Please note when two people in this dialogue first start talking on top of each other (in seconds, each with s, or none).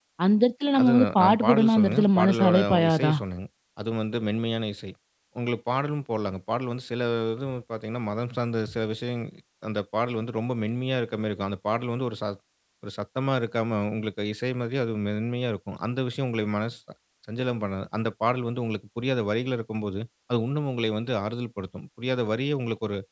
0.8 s